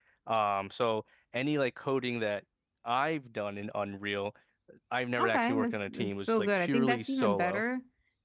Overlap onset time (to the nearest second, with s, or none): 5 s